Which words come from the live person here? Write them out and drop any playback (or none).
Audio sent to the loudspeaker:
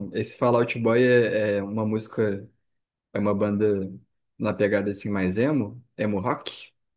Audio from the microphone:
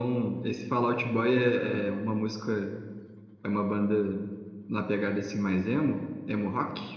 Não, cara.